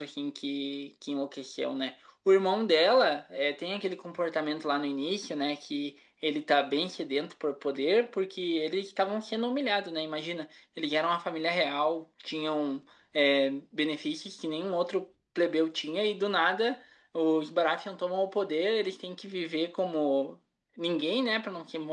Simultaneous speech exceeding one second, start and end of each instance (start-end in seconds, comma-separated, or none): none